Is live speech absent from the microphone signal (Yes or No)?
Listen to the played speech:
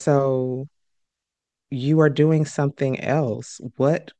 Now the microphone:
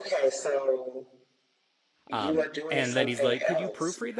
No